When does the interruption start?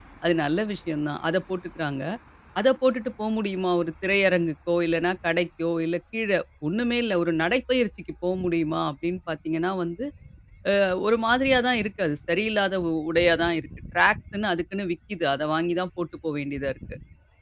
none

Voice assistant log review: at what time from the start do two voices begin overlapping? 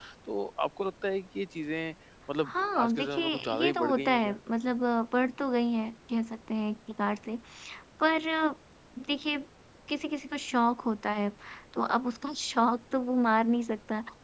2 s

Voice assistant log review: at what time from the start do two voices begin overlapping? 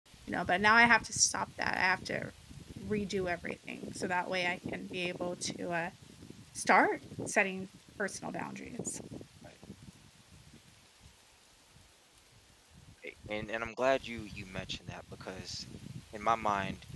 none

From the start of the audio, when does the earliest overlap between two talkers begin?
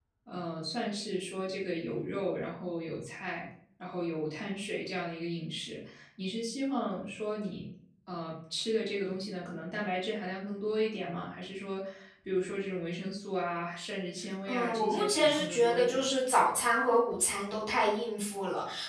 14 s

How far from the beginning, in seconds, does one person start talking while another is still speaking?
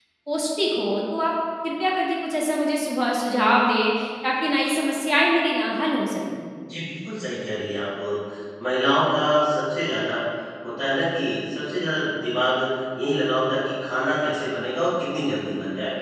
none

